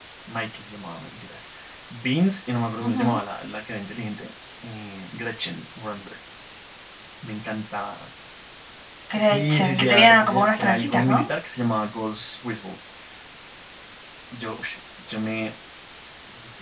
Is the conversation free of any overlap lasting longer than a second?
No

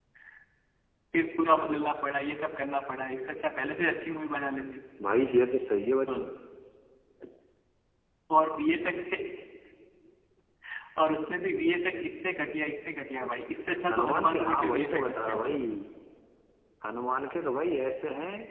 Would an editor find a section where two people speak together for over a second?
Yes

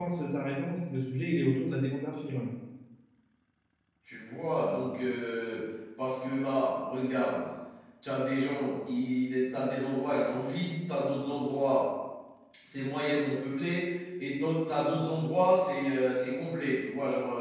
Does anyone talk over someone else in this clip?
No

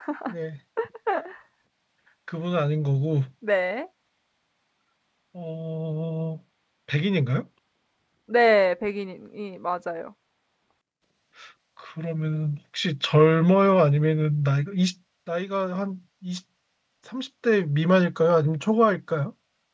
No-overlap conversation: Yes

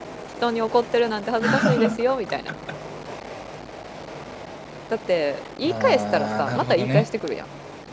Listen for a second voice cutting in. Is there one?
Yes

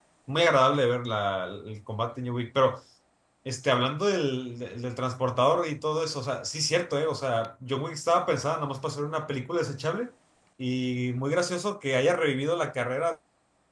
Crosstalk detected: No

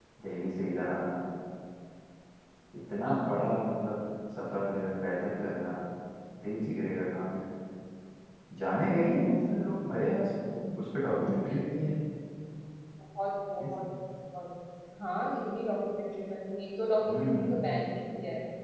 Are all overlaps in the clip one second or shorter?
Yes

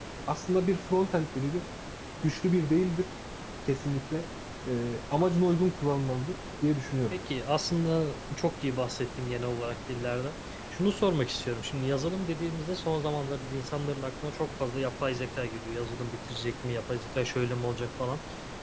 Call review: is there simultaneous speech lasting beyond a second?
No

